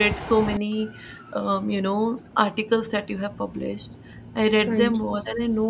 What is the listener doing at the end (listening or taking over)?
listening